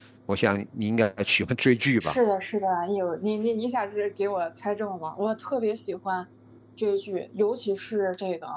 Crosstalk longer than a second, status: none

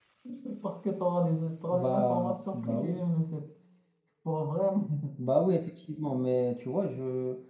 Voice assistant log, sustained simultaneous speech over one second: present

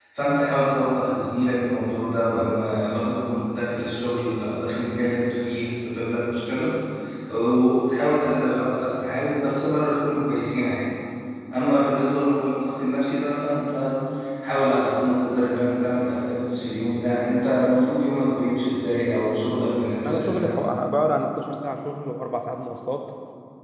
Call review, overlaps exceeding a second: none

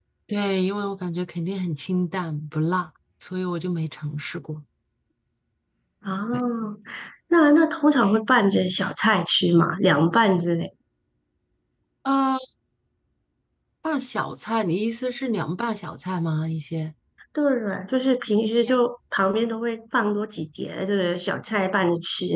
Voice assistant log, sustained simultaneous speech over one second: none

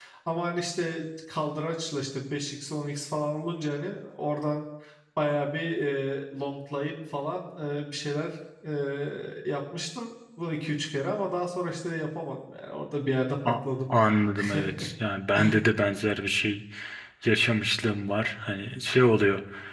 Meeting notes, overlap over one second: none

